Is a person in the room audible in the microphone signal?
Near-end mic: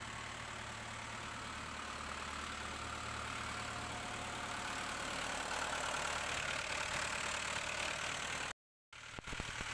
No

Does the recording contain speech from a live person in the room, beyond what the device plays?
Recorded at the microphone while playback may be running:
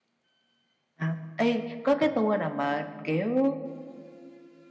Yes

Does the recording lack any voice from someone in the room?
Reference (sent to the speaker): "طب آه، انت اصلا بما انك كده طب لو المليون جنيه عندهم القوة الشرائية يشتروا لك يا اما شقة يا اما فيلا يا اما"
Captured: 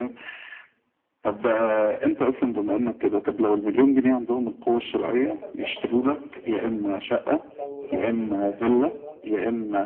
No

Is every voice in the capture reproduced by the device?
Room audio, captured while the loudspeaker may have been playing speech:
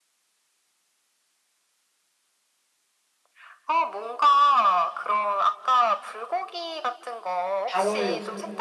No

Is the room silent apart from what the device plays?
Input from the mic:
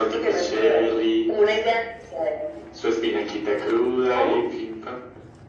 Yes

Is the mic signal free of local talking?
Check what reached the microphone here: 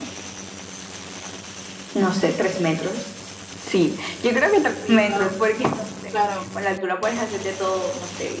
No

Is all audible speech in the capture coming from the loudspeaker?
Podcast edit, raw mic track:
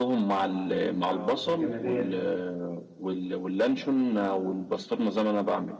No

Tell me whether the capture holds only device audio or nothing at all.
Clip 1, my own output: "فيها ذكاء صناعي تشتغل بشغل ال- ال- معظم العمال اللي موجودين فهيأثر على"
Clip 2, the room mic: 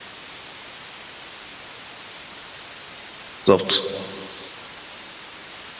No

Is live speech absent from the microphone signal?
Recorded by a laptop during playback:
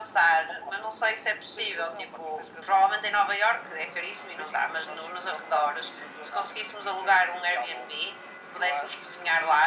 Yes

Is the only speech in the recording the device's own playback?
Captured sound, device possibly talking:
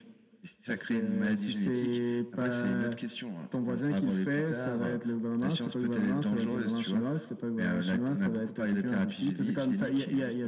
Yes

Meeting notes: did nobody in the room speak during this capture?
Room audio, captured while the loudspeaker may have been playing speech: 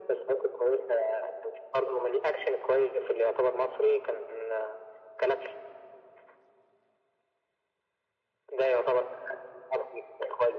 Yes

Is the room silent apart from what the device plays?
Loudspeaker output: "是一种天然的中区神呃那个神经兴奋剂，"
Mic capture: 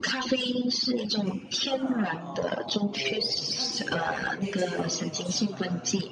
No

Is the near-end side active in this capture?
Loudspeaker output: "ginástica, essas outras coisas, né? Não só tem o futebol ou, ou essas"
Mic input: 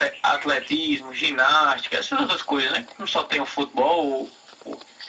No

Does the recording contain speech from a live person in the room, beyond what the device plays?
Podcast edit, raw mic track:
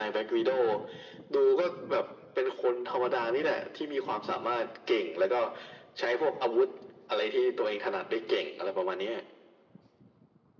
No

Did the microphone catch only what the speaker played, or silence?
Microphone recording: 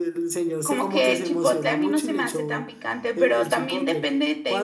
No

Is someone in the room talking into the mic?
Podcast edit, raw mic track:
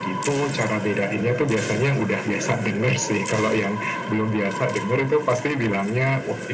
No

